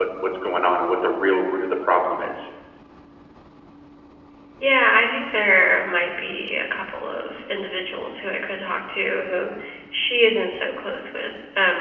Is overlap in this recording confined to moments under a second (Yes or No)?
Yes